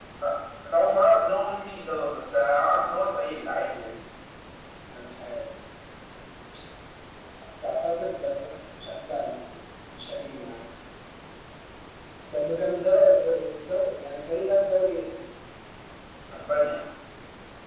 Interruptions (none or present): none